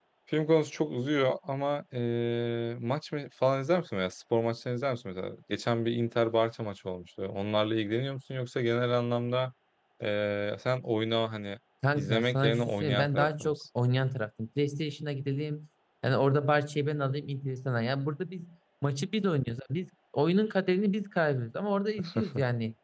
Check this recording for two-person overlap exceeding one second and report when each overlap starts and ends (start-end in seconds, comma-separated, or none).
11.9-13.6